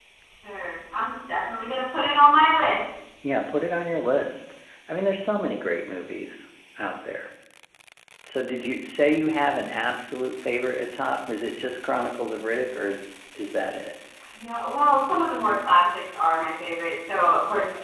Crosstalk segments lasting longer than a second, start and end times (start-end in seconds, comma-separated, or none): none